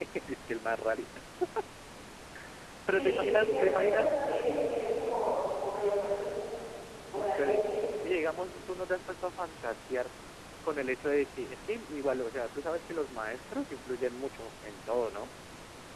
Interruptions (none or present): present